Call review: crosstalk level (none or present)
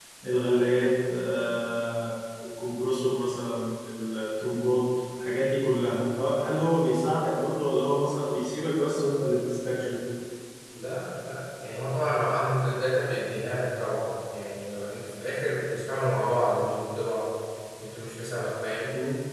none